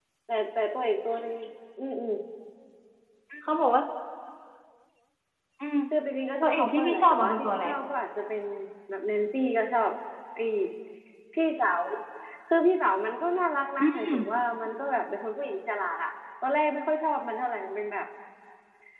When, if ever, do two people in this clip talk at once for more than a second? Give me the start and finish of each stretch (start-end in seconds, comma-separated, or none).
6.4-7.7